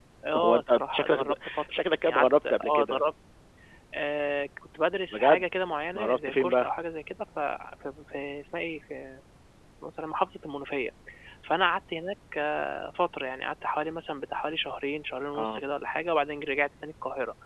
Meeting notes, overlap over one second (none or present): present